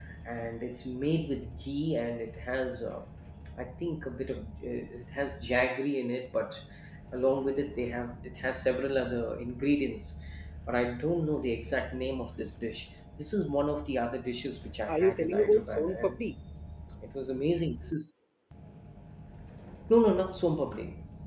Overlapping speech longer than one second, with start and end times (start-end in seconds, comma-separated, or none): 14.9-16.2